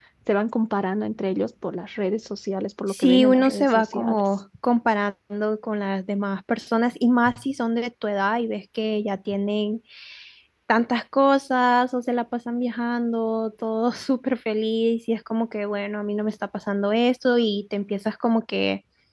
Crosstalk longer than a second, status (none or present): present